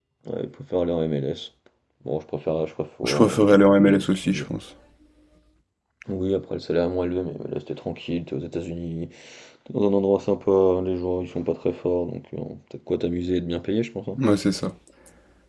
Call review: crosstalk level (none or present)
present